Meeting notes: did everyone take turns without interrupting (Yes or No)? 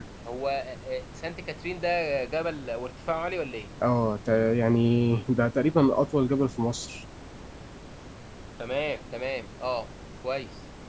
Yes